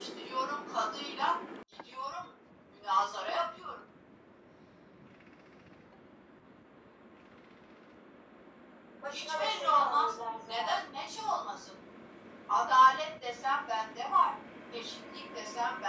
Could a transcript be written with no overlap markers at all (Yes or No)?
No